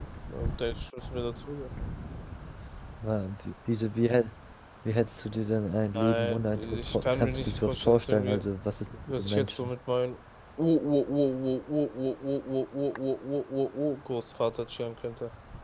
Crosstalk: present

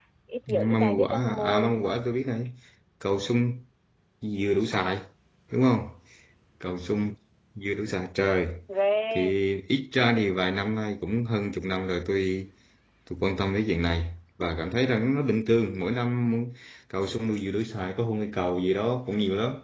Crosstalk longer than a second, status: present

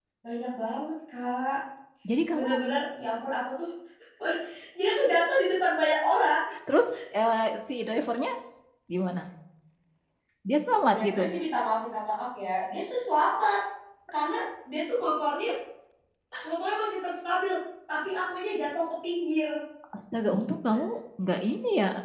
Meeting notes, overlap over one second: none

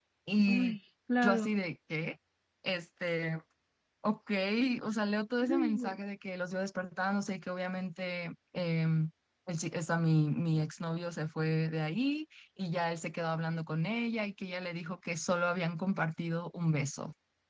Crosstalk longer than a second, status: none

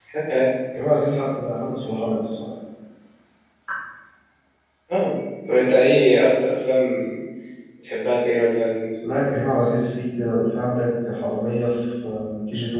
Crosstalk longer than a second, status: none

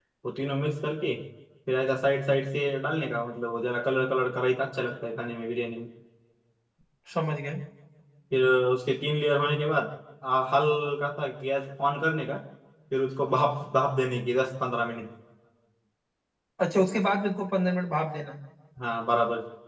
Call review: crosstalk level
none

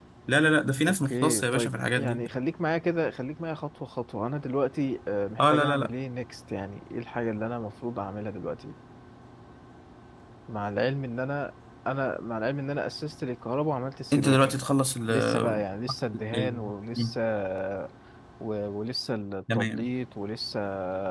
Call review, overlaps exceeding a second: present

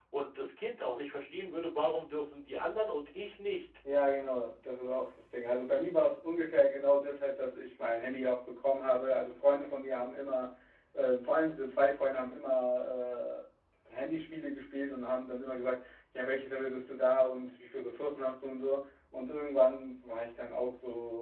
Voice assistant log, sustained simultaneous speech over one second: none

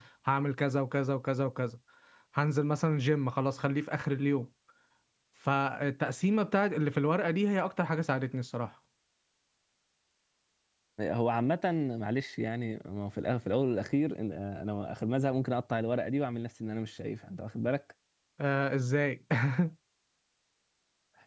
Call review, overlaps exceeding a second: none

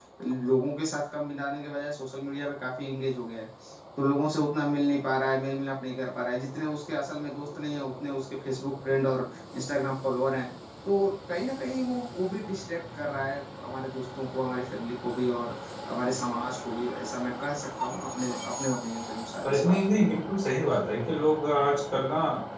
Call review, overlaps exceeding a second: none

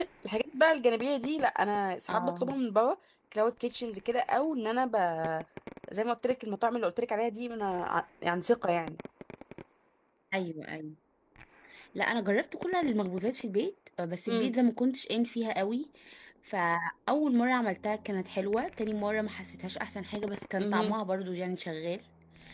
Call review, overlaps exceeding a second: none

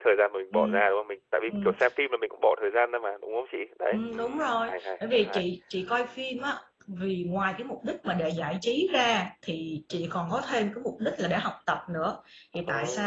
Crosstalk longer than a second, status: present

